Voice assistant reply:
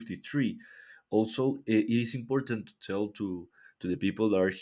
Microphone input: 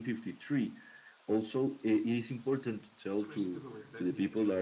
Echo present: Yes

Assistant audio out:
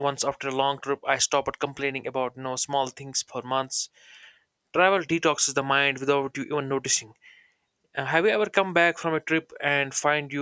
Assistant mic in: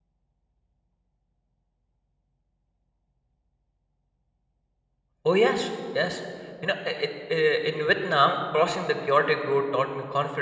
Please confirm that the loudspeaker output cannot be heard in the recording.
Yes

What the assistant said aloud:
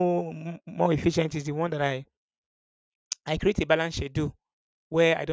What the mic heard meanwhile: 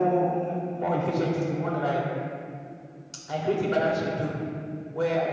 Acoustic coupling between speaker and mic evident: Yes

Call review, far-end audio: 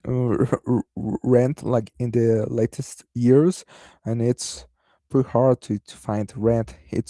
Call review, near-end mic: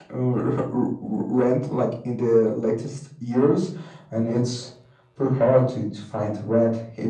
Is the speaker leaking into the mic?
Yes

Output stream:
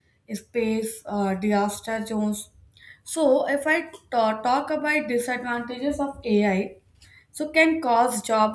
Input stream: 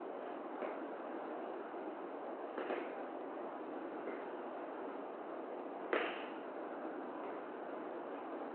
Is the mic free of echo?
Yes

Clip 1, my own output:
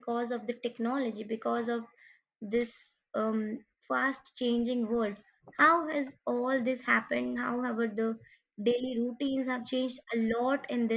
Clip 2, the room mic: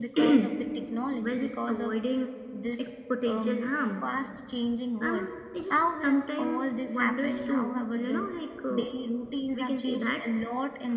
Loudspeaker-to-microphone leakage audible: Yes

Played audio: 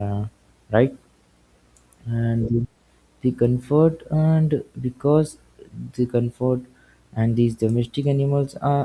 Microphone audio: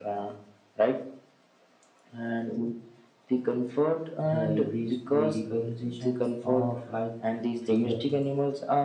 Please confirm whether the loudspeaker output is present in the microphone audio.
Yes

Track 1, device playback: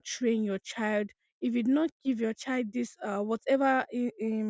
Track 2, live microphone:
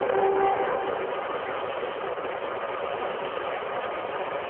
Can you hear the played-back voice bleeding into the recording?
No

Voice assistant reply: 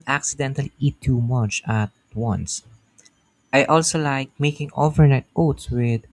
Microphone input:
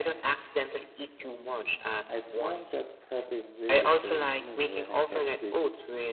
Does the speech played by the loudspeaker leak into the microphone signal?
Yes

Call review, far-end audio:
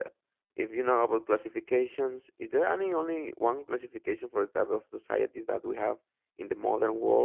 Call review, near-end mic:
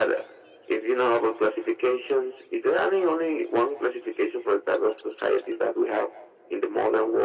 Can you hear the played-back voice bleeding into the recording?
Yes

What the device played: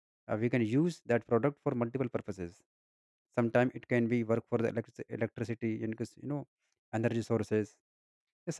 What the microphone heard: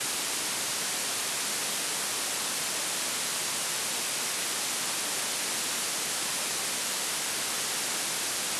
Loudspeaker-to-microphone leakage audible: No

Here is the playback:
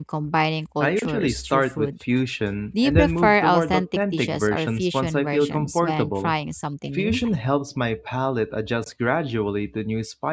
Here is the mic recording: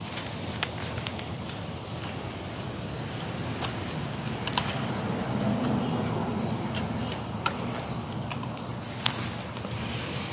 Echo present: No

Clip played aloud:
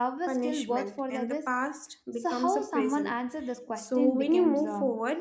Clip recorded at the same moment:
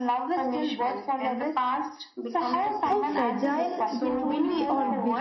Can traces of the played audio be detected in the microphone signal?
Yes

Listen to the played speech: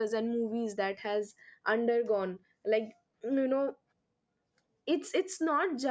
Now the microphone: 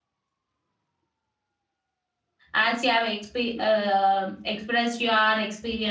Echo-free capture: Yes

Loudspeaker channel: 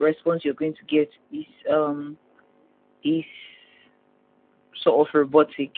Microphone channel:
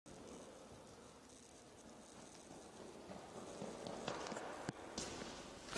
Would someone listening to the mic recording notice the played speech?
No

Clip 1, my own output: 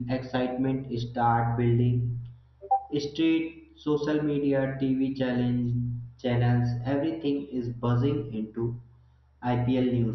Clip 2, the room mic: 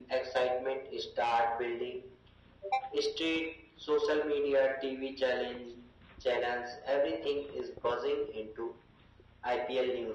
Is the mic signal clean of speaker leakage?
No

